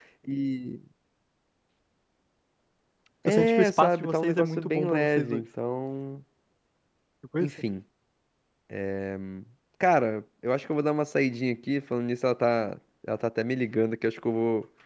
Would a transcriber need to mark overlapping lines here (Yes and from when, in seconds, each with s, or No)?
Yes, from 3.3 s